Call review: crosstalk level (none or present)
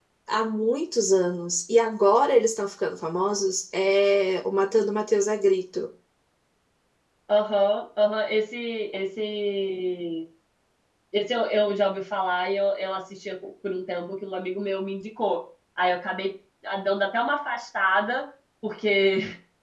none